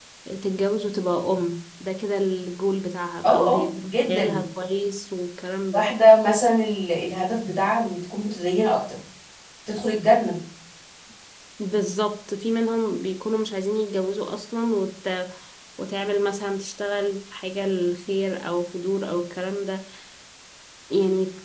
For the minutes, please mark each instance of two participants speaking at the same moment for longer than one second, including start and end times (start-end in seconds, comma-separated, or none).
3.2-4.4